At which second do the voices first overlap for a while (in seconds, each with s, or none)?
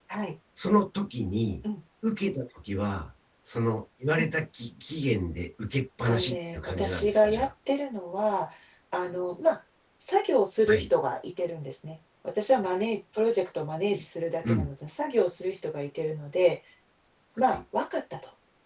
6.1 s